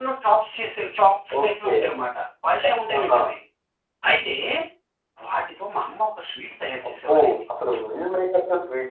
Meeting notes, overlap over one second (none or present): none